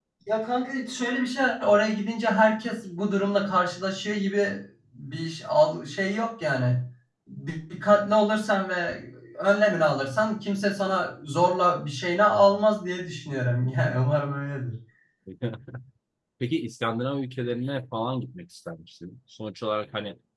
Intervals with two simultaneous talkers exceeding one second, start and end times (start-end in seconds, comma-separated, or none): none